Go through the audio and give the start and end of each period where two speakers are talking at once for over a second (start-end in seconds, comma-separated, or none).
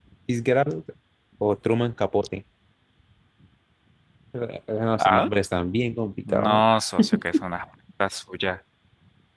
none